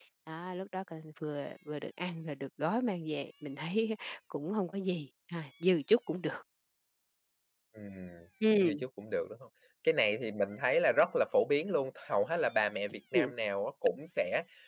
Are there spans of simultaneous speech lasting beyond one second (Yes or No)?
No